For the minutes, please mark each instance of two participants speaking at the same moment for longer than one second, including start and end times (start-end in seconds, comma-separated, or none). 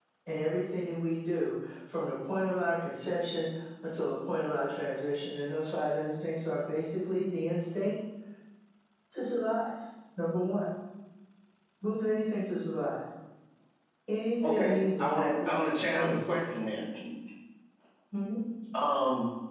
14.4-16.4